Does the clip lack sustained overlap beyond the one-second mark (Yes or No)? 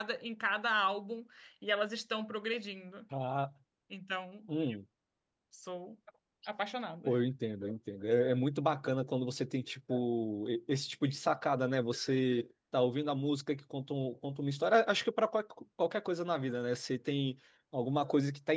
Yes